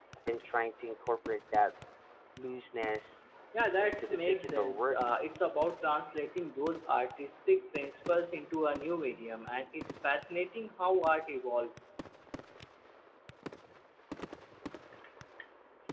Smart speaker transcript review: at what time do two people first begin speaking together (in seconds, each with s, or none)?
3.8 s